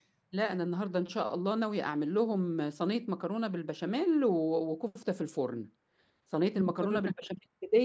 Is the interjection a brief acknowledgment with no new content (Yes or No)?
Yes